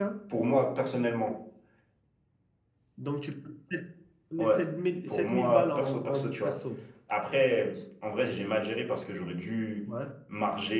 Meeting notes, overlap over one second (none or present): present